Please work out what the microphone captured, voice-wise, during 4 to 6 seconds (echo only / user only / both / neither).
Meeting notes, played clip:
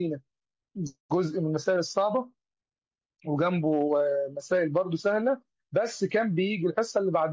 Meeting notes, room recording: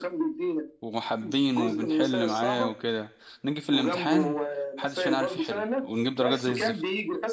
both